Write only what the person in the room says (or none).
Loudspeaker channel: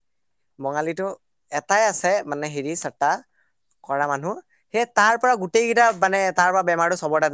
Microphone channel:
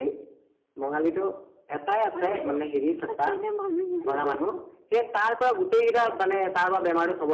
আৰে কিনো মানুহ হয়।